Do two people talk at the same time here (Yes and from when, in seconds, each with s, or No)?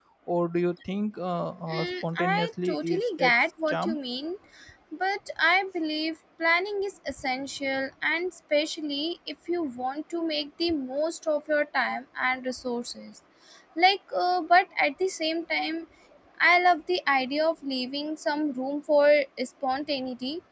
Yes, from 1.7 s